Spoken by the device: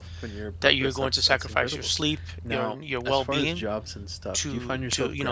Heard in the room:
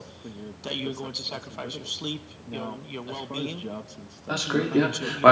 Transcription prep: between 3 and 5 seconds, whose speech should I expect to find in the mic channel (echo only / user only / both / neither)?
both